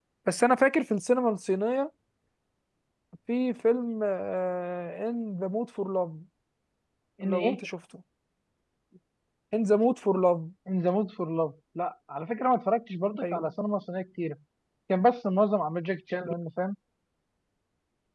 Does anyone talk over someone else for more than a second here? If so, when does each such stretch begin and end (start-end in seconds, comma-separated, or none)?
none